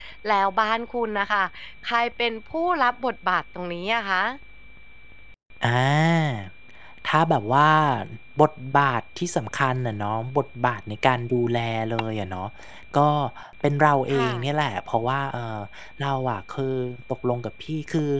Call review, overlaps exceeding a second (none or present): none